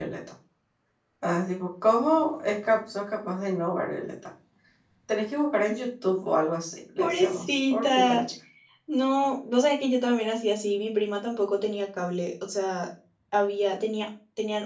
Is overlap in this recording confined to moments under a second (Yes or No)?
No